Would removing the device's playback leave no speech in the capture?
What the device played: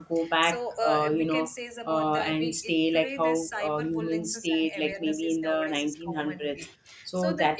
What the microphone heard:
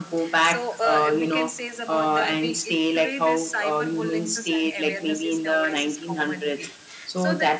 Yes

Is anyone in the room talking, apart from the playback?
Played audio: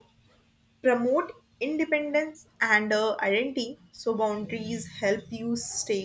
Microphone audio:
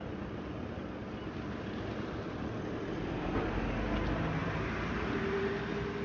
No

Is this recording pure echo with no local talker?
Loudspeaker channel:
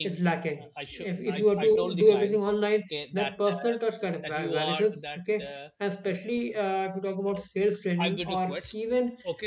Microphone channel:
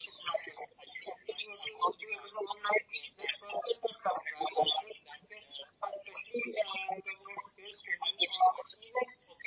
Yes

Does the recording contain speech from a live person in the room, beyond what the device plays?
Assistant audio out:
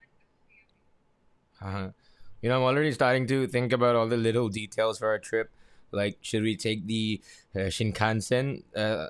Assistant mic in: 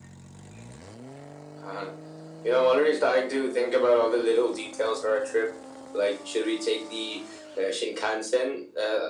No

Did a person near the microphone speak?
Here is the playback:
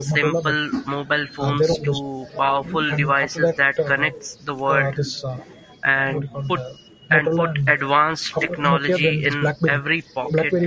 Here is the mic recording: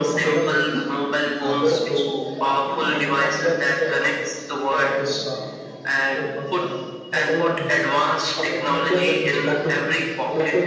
No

